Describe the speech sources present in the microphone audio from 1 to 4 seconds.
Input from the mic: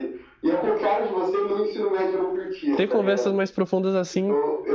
both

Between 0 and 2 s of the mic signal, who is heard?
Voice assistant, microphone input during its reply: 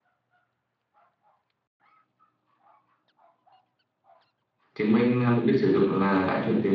neither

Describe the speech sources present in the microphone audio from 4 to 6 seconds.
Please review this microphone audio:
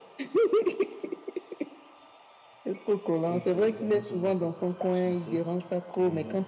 both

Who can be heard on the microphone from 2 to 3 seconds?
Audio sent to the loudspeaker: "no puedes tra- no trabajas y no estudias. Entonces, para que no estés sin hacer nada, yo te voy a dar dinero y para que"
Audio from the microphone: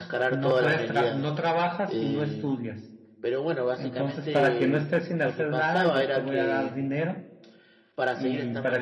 both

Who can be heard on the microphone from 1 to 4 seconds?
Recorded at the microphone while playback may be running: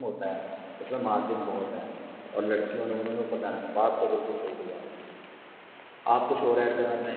user only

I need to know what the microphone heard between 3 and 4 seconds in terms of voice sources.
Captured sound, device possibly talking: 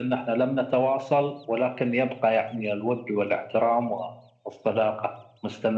echo only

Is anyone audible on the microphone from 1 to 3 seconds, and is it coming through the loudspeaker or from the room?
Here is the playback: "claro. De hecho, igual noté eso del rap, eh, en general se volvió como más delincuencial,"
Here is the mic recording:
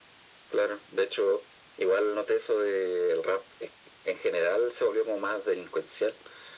echo only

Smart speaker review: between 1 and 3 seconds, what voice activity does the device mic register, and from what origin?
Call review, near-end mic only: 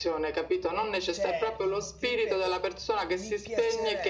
both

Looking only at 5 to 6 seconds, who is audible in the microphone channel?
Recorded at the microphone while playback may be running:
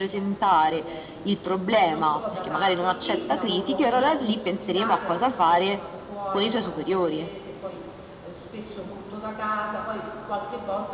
both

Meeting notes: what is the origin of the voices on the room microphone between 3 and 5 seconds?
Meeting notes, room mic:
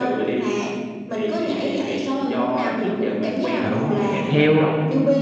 both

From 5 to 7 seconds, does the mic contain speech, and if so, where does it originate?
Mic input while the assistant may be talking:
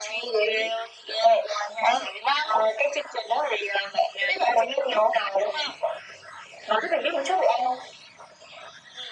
echo only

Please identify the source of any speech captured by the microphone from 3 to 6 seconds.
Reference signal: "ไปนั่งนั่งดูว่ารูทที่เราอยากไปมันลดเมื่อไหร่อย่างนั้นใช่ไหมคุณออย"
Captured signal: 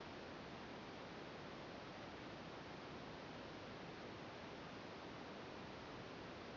neither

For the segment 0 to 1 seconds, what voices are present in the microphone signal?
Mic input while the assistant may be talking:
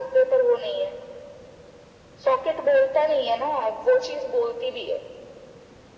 echo only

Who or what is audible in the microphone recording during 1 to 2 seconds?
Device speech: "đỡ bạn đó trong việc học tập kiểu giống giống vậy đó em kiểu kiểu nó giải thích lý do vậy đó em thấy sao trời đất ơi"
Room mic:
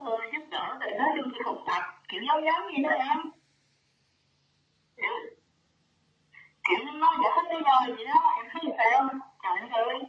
echo only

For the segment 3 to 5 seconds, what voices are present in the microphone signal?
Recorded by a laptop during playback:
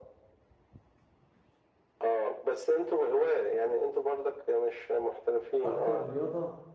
echo only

